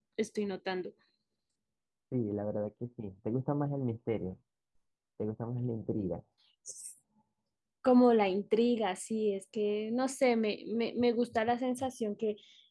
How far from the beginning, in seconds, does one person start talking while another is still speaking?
none

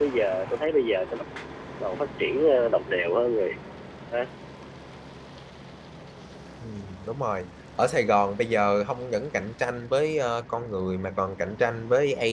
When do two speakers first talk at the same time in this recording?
none

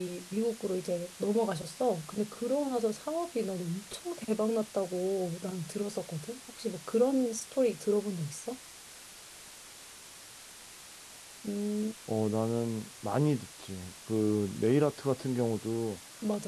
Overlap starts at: none

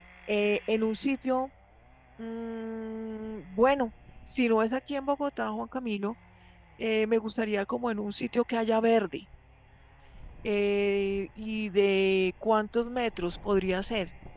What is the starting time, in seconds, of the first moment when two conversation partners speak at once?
none

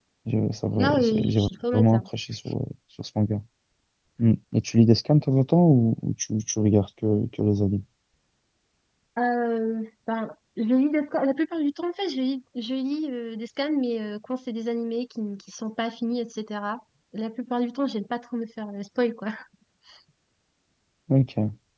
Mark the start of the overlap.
0.8 s

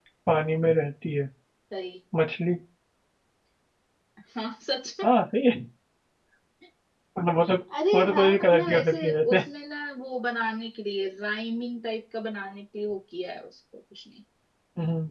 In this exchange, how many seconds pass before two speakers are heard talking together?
7.9 s

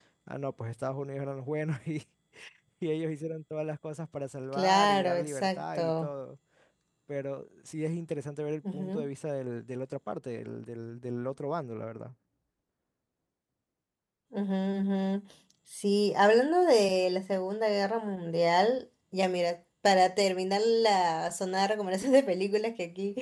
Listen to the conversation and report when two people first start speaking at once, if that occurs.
4.5 s

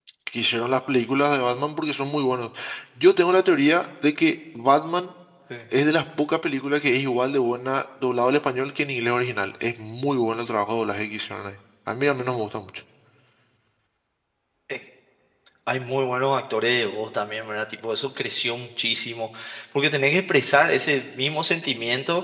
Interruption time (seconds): none

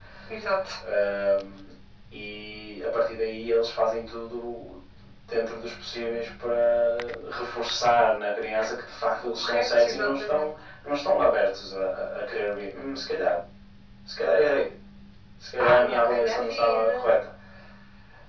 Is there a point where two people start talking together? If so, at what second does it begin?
9.2 s

